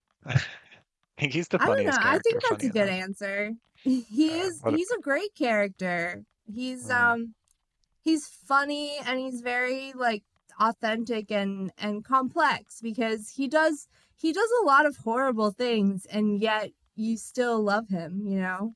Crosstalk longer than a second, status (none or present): present